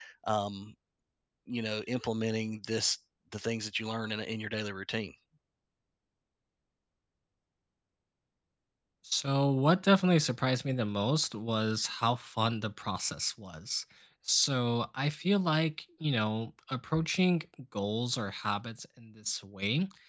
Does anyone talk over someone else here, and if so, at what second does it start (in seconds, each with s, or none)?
none